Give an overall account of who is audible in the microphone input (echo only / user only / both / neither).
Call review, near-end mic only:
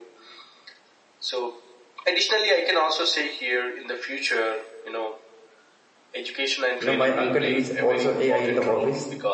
both